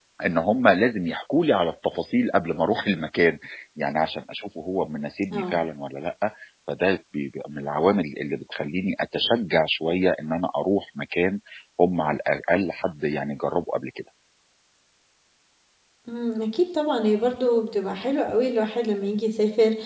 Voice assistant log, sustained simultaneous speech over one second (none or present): none